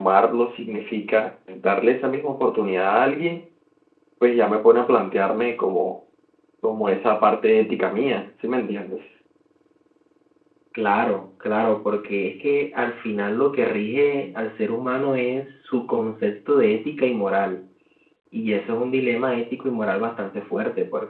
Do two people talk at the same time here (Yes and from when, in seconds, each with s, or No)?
No